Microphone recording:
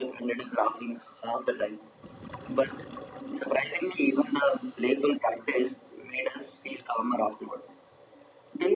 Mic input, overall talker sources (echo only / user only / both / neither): echo only